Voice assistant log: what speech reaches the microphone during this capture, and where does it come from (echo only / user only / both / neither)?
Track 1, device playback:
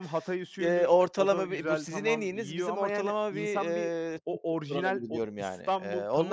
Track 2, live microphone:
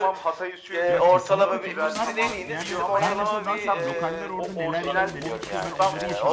both